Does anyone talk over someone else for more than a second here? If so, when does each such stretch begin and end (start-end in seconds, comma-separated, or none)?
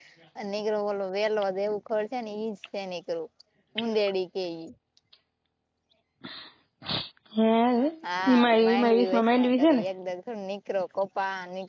8.3-9.8